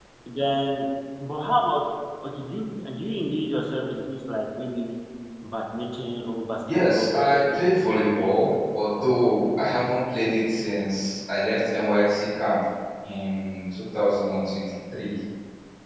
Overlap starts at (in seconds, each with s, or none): 6.7 s